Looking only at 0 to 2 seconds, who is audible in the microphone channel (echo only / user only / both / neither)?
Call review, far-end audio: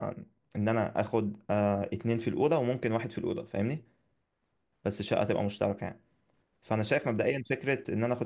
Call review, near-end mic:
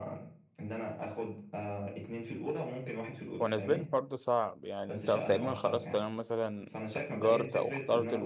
echo only